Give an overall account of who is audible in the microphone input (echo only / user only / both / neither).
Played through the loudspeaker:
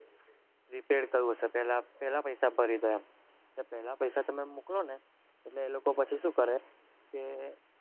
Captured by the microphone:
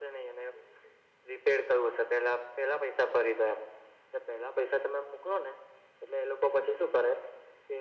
echo only